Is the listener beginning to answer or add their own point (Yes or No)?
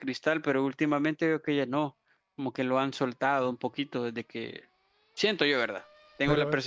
No